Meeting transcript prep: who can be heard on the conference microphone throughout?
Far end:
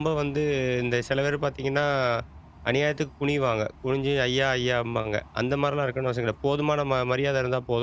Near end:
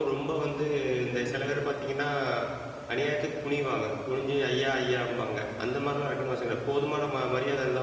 echo only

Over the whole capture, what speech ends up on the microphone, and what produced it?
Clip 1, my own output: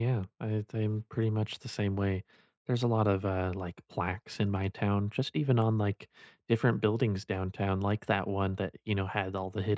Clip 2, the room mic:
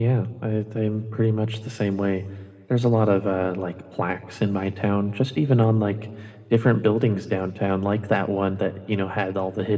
echo only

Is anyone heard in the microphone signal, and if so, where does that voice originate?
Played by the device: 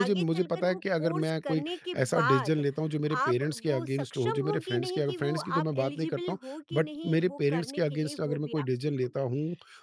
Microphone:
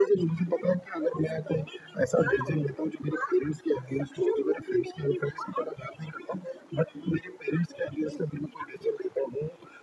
echo only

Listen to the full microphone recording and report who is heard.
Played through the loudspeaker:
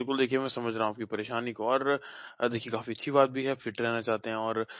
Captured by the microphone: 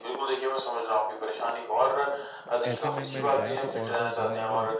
both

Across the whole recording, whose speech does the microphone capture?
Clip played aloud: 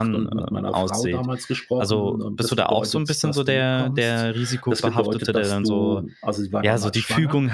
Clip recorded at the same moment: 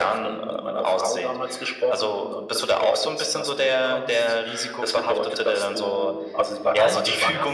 both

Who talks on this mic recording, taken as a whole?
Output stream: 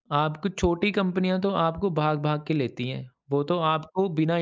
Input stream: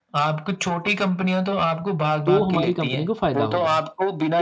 both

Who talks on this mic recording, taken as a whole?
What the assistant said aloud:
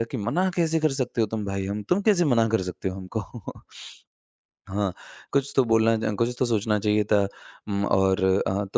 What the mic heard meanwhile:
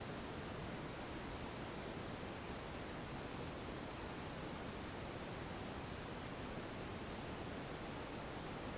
neither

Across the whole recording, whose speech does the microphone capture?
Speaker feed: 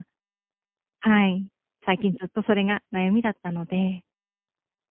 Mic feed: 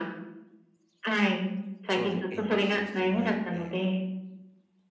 both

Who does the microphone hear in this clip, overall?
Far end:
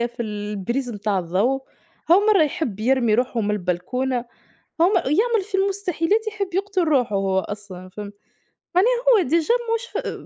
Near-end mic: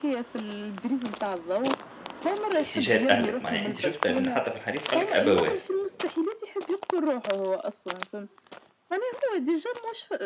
both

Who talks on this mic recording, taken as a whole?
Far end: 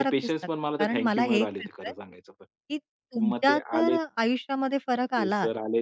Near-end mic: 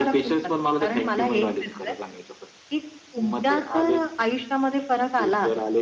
echo only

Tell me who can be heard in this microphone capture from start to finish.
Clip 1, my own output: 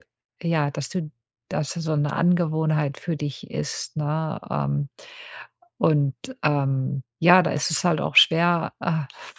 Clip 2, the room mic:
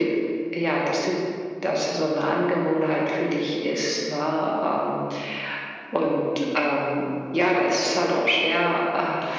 echo only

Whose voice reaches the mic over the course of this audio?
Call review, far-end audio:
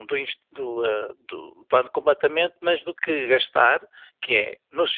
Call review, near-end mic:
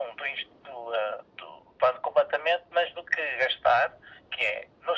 echo only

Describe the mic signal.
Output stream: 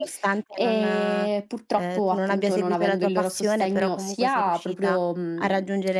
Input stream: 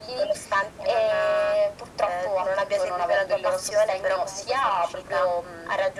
echo only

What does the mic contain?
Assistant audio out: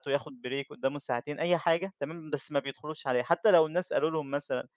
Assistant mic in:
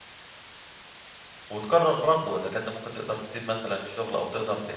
user only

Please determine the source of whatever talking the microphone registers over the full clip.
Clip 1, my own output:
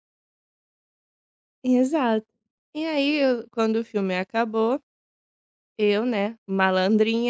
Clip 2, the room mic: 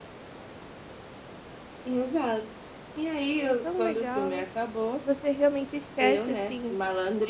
both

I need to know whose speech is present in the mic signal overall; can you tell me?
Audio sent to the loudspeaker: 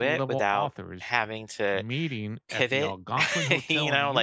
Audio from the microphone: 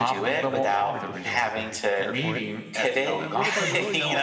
both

